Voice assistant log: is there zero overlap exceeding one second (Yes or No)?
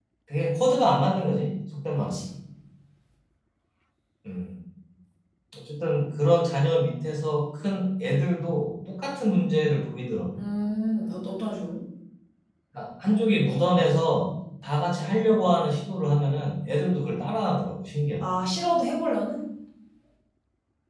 Yes